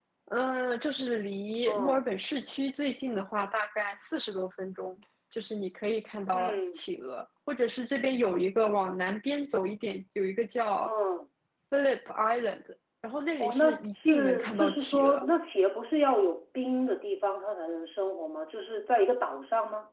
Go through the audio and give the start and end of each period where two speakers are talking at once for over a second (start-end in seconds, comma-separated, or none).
13.4-15.2